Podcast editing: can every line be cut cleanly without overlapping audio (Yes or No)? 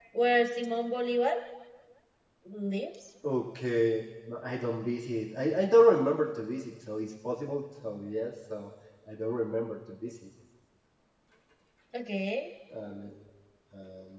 Yes